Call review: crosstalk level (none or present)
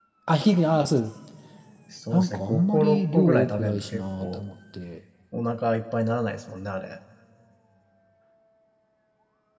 present